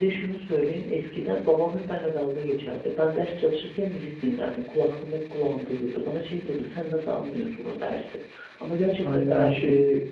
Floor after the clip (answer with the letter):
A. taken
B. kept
A